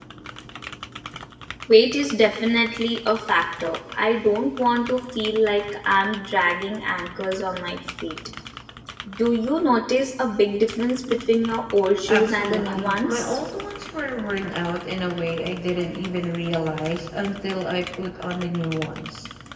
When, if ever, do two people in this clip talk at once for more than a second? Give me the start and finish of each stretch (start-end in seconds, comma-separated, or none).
12.1-13.4